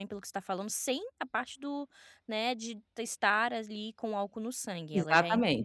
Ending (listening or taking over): listening